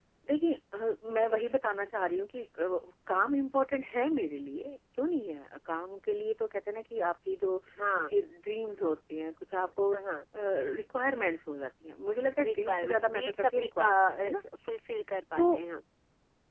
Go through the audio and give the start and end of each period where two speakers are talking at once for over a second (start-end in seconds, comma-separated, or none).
12.4-14.4